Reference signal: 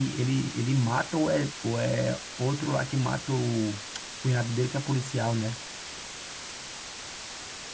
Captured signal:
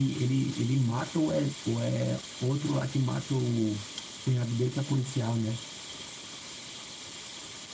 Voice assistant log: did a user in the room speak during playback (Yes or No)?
No